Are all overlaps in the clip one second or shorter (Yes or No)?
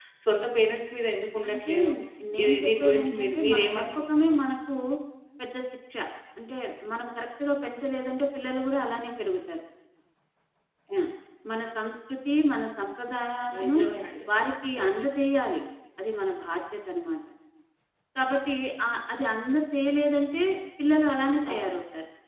No